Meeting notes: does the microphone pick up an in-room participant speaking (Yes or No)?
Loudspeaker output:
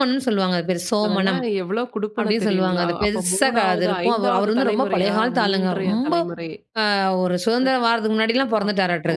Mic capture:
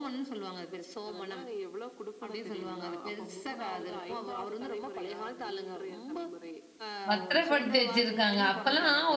Yes